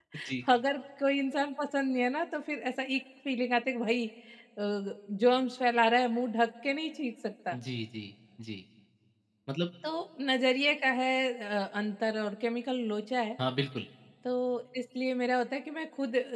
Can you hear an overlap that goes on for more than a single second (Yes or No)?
No